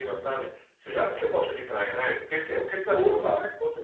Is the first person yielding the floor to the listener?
No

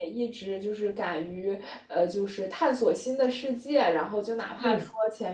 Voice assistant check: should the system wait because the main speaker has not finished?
Yes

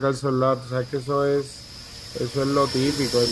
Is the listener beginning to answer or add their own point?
Yes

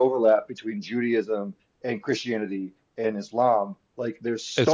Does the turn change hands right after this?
No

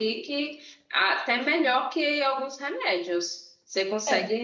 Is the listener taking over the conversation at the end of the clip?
No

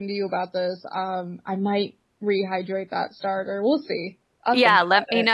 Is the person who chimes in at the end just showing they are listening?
No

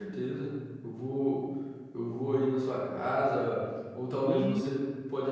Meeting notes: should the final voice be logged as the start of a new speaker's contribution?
No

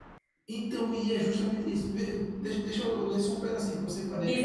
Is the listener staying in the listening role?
No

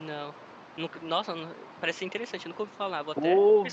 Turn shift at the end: Yes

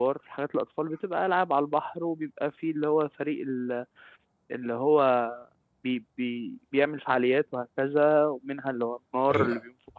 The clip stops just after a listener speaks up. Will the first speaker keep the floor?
Yes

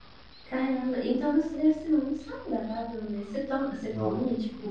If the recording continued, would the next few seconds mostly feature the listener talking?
No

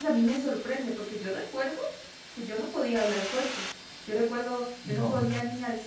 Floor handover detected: No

